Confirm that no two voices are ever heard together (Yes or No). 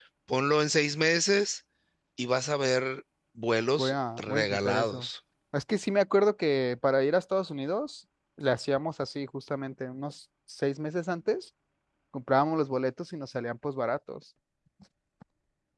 No